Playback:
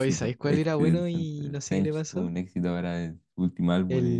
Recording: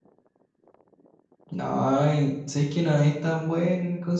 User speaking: Yes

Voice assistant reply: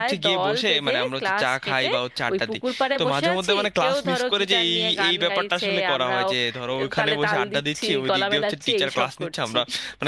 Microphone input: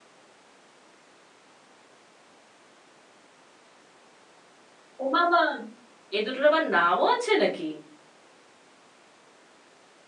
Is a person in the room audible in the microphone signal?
Yes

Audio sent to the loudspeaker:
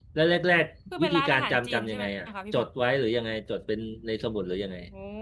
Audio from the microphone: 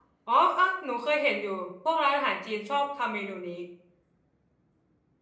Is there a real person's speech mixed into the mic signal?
Yes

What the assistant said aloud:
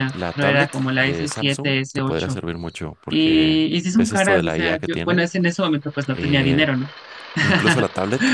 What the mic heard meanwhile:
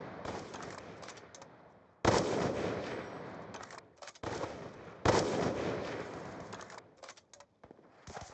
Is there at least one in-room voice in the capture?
No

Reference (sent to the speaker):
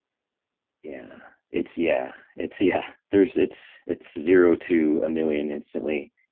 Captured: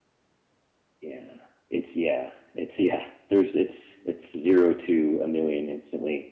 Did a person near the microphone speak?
No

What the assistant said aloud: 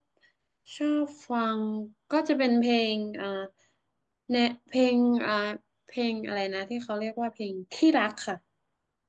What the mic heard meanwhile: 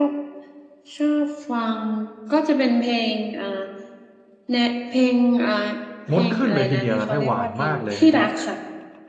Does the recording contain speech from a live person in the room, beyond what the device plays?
Yes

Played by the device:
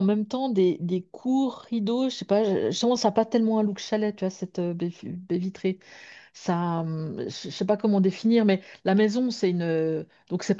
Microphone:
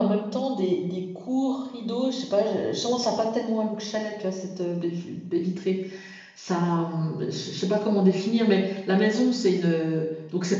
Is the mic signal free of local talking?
Yes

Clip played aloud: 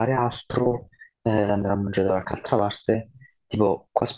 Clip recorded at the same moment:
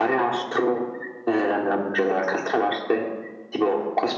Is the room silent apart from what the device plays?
Yes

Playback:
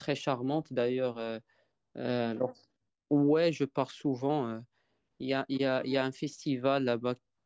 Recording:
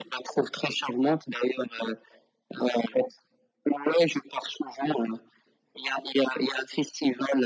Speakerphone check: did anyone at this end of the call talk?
No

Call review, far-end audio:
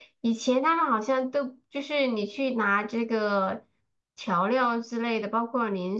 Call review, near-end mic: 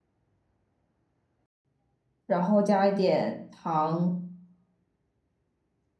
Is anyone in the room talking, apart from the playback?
Yes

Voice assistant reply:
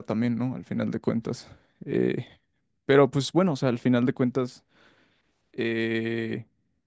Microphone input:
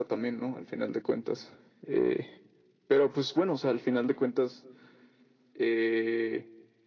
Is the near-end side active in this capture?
No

